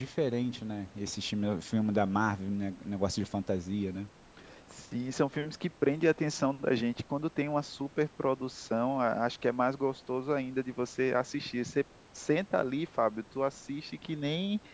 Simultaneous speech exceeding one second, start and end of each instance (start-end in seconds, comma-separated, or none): none